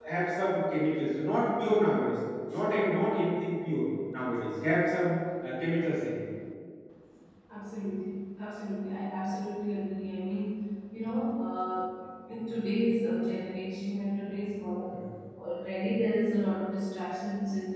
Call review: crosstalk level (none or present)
none